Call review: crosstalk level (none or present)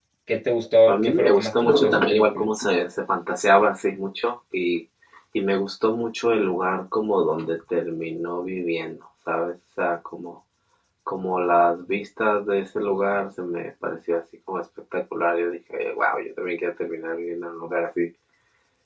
present